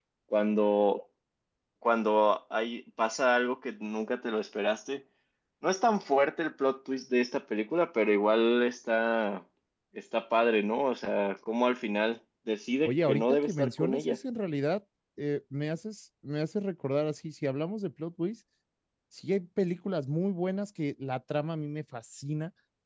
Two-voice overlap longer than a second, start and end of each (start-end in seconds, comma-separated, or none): 12.8-14.2